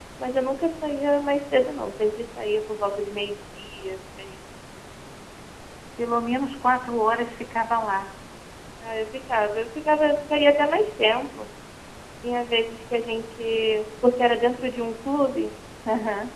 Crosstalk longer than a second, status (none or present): none